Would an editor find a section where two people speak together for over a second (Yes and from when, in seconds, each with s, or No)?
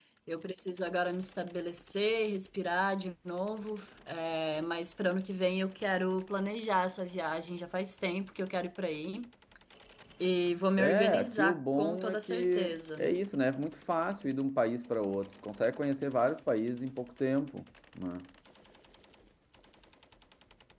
Yes, from 10.8 s